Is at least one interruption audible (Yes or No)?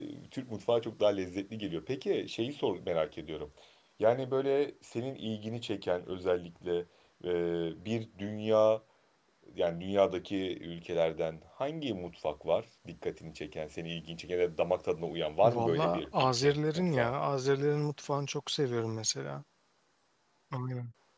Yes